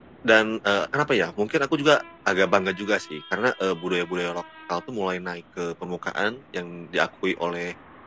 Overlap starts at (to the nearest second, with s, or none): none